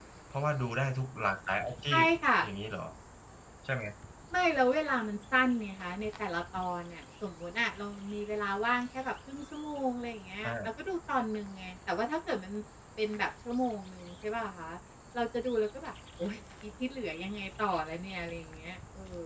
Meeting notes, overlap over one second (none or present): none